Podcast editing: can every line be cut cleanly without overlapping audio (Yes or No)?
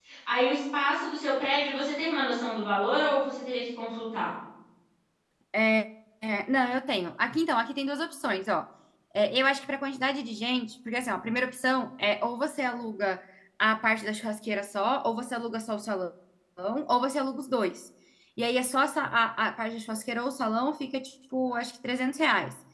Yes